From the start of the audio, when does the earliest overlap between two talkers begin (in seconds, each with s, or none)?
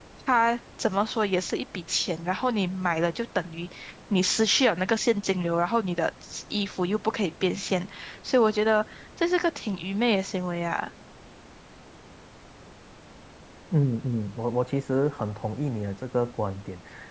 none